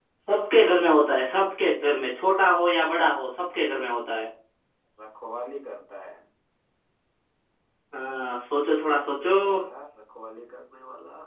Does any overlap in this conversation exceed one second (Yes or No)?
No